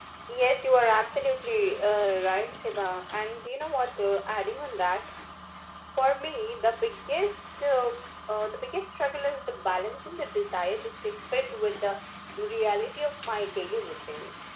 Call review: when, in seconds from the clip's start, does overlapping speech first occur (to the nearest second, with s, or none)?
none